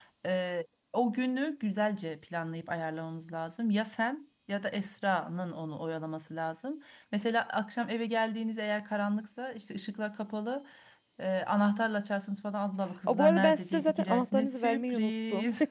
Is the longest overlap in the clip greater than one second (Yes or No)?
Yes